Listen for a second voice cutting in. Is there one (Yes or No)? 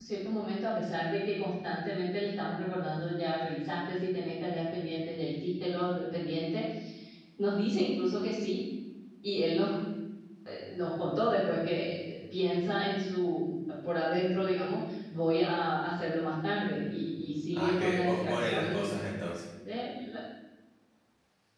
Yes